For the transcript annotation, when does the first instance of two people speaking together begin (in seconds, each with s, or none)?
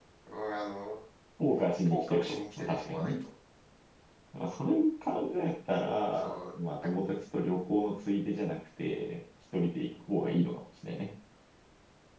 1.9 s